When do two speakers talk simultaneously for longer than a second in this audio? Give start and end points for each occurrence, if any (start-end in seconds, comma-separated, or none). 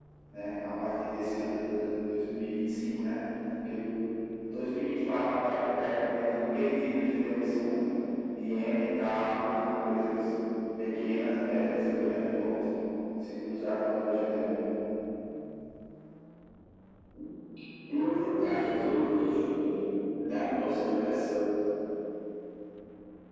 none